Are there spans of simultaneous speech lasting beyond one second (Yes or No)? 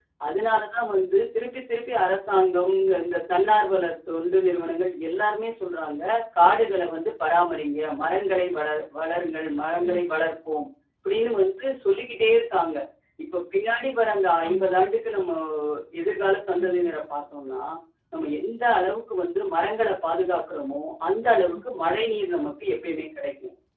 No